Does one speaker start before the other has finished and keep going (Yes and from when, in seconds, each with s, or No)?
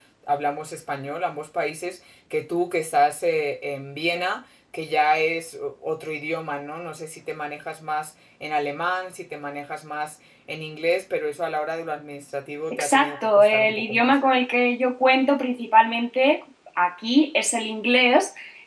Yes, from 12.7 s